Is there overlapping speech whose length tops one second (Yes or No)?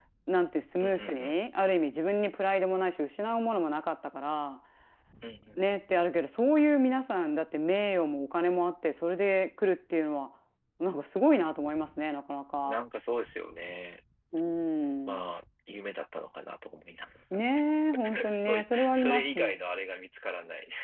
Yes